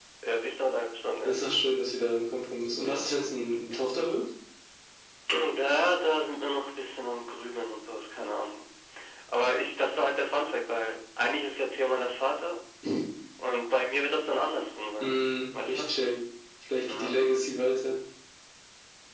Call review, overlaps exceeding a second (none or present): none